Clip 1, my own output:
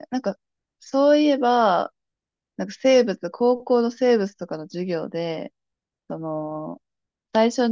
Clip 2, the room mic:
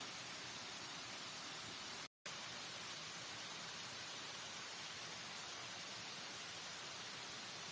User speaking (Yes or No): No